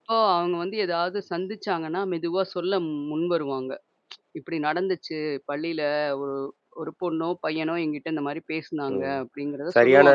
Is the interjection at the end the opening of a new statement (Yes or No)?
Yes